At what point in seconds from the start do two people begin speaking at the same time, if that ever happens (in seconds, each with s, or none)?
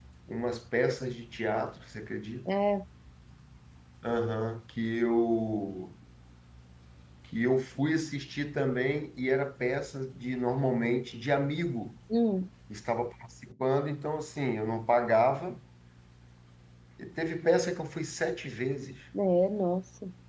none